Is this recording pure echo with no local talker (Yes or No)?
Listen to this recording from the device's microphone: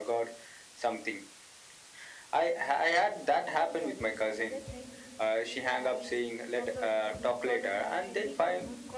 No